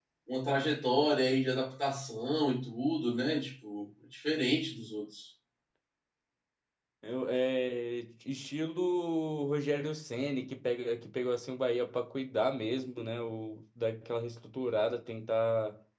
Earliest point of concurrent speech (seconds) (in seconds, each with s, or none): none